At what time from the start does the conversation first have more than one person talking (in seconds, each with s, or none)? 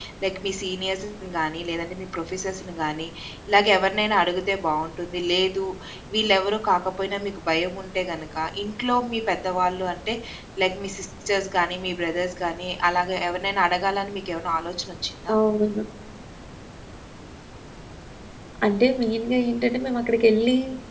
none